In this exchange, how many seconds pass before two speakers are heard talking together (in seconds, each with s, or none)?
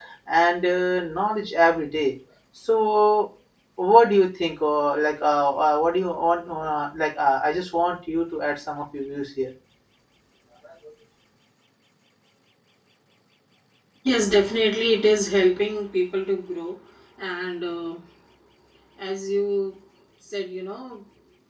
none